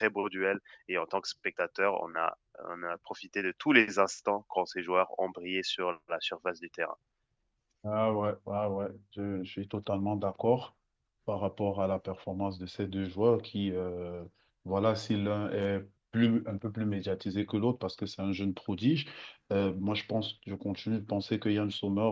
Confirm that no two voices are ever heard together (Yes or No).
Yes